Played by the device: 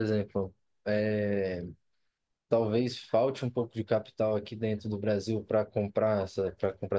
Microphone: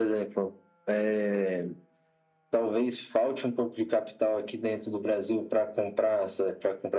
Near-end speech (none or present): none